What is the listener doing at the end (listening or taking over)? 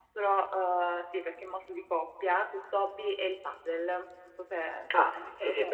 taking over